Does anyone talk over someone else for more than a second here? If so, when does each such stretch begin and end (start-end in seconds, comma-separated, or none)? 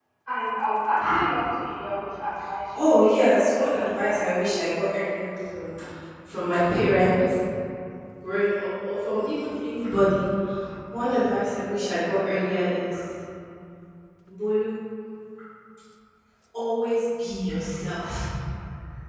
2.8-4.3